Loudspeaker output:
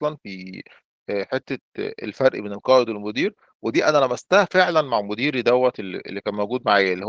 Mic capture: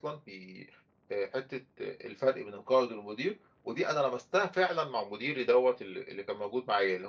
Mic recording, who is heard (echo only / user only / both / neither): echo only